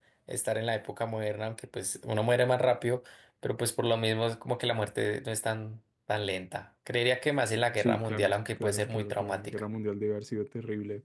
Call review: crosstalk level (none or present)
present